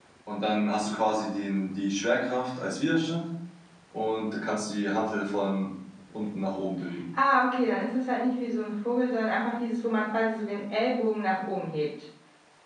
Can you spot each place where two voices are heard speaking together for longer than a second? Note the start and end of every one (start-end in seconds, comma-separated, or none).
none